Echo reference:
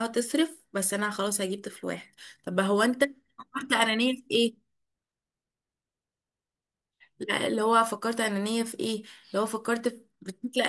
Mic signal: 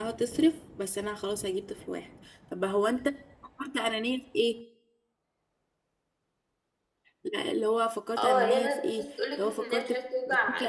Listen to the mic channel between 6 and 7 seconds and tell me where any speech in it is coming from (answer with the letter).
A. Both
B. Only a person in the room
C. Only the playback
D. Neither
D